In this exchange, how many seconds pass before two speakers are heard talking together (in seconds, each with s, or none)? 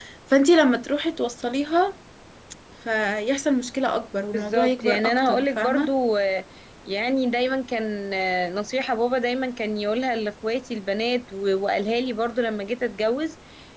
4.3 s